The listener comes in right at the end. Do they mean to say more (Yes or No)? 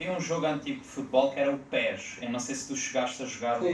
Yes